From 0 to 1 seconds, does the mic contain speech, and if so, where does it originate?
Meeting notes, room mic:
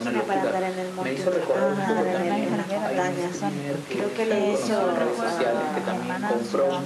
echo only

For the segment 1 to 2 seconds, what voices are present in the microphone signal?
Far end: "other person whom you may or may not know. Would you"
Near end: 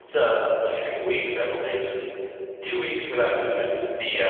user only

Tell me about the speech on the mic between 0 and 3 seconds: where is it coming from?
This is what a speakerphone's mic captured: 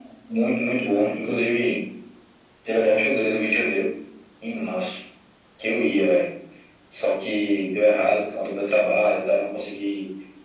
echo only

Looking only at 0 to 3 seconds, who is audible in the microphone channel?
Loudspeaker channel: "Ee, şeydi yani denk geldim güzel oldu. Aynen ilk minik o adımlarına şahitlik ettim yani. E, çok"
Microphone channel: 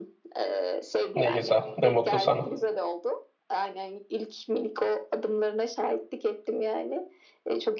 both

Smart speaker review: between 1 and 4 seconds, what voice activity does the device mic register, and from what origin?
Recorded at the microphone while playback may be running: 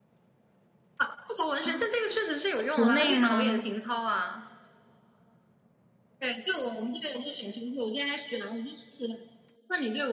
both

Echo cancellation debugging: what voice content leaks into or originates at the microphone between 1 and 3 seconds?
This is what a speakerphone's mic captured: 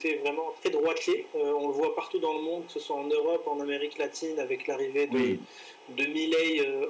echo only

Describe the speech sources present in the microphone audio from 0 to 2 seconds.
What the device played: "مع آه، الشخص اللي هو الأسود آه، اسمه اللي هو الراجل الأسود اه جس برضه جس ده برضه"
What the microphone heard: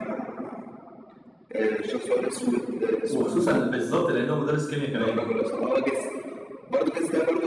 echo only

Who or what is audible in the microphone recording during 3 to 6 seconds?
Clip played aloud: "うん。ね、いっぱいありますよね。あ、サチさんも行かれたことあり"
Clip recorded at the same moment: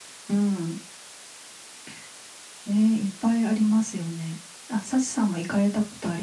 echo only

